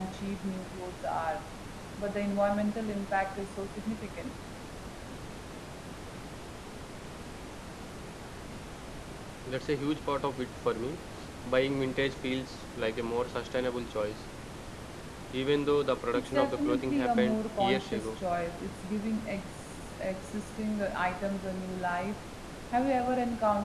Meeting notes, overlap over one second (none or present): present